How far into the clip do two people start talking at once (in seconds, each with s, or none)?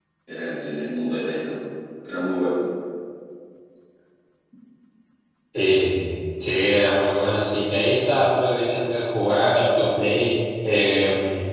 none